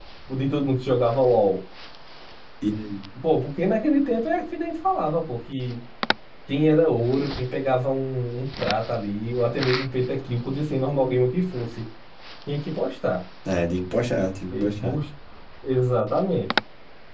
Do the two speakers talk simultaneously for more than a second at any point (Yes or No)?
No